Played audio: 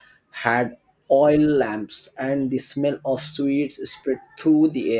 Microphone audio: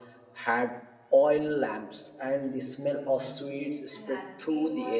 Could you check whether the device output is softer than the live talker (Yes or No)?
No